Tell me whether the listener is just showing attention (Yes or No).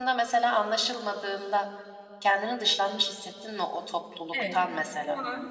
No